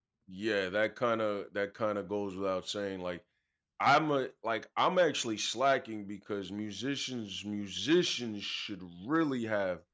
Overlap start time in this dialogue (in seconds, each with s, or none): none